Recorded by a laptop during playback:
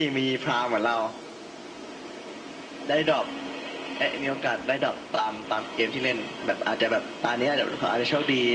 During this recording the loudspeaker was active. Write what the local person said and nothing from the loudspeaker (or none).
none